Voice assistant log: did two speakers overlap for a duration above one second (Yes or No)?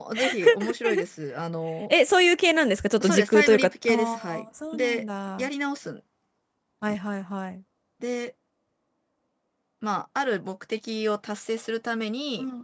Yes